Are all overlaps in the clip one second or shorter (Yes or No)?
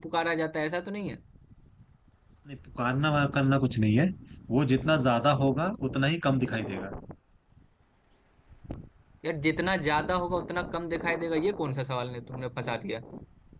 Yes